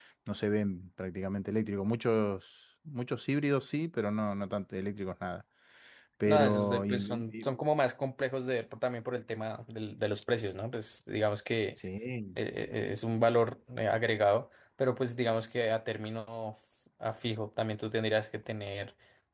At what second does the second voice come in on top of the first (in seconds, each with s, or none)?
6.3 s